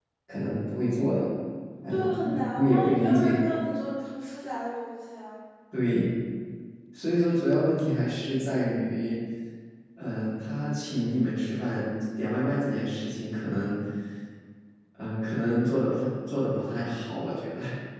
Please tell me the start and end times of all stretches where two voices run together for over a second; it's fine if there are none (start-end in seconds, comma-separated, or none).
1.9-3.4